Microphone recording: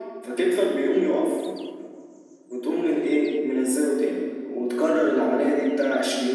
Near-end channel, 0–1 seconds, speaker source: echo only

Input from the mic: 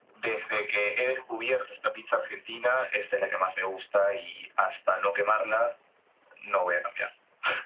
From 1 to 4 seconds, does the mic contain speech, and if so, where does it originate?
echo only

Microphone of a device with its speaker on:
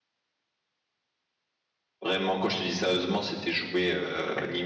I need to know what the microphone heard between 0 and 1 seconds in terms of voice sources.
neither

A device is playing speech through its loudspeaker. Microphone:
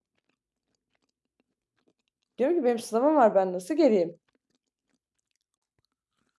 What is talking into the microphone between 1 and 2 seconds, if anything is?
neither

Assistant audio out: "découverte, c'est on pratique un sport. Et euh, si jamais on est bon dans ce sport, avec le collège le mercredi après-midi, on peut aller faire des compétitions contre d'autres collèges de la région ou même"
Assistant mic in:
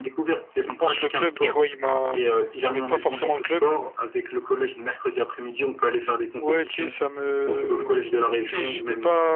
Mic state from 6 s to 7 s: both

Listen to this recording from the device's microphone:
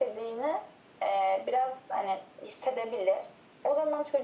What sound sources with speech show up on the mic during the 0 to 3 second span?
echo only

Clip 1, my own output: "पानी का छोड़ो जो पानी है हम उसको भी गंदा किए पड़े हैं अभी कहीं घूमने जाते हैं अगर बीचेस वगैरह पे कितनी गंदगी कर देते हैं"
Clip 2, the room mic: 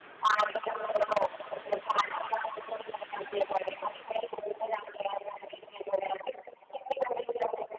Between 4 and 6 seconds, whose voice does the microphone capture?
echo only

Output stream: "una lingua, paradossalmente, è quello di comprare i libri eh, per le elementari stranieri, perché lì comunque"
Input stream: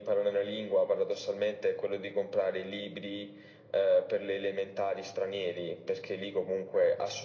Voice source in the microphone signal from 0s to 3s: echo only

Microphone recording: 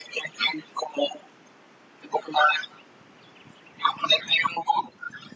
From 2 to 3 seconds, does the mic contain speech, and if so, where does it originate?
echo only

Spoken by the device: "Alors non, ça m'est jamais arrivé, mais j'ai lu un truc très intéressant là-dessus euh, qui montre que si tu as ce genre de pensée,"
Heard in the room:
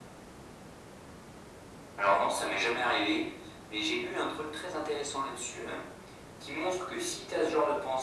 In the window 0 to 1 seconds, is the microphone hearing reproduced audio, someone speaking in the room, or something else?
neither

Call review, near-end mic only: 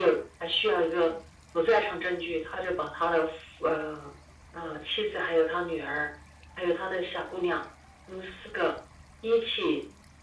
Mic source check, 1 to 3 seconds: echo only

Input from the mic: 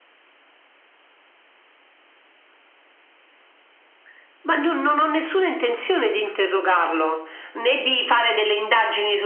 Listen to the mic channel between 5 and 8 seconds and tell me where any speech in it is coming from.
echo only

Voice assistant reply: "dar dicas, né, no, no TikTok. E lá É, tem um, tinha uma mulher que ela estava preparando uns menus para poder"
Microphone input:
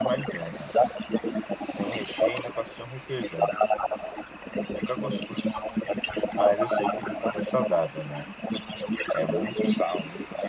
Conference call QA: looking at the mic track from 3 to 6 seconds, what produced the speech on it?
both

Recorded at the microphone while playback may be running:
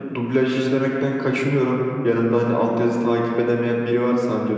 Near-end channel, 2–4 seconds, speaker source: echo only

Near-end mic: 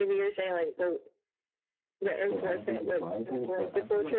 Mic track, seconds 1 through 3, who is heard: both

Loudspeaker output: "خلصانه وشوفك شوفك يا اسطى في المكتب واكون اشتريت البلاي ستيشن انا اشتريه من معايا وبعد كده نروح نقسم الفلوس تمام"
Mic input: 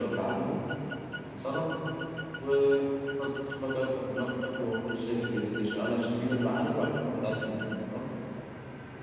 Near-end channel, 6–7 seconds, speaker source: echo only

